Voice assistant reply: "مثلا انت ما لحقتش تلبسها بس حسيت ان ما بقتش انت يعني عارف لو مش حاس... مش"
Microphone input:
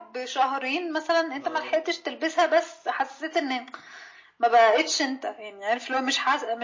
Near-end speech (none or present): present